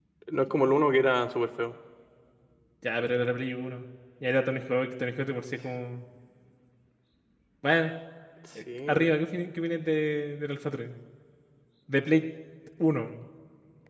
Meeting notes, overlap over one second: none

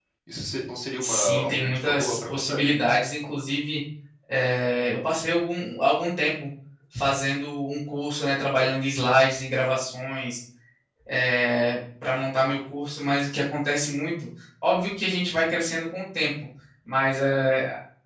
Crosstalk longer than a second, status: present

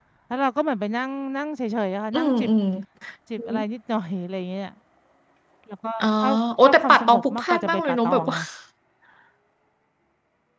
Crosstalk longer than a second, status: present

